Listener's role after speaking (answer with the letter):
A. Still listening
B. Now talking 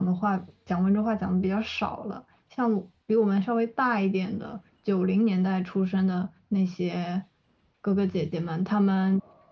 B